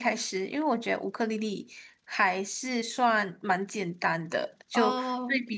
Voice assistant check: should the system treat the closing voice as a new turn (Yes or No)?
No